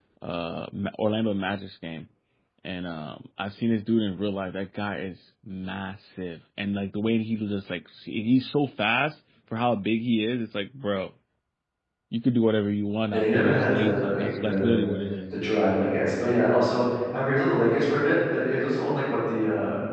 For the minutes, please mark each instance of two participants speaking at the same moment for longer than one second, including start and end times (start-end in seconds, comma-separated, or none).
13.1-14.8